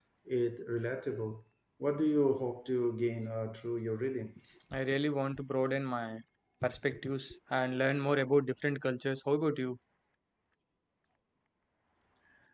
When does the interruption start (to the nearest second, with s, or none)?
none